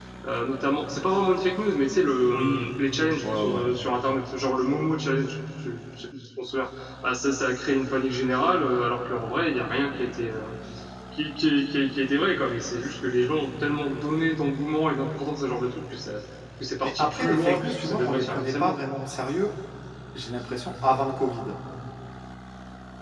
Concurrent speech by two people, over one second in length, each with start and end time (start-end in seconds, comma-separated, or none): 17.0-18.8